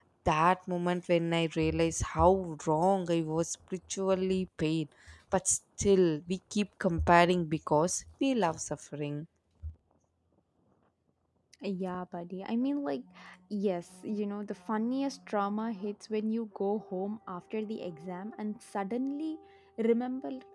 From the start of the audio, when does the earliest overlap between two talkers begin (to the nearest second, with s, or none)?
none